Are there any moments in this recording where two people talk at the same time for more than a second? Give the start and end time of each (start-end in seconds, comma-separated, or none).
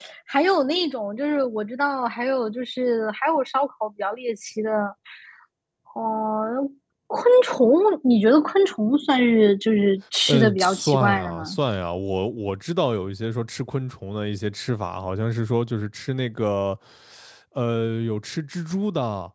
10.3-11.6